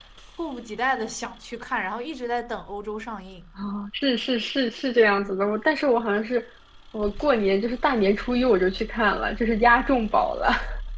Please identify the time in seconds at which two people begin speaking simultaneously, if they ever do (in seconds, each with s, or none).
none